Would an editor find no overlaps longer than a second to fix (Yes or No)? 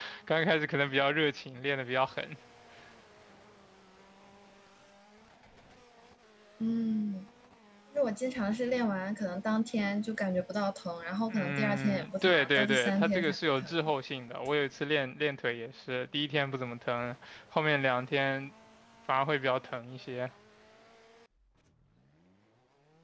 No